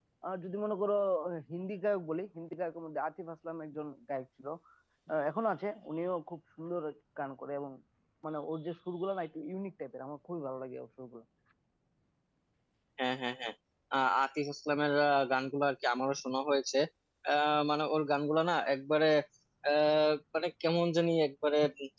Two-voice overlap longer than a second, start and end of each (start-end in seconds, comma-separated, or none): none